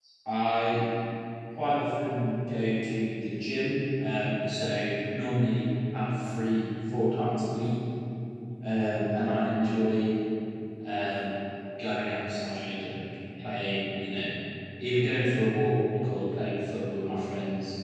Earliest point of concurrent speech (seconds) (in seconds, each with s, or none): none